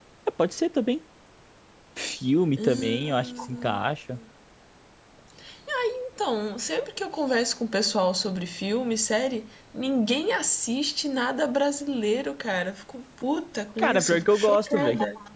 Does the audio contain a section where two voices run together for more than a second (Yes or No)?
Yes